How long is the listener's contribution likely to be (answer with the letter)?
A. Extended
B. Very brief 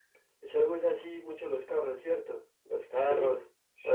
A